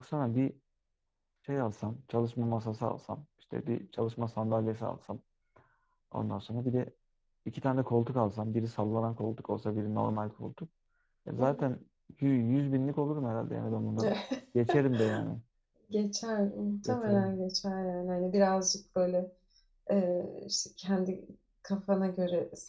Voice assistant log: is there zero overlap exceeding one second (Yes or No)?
Yes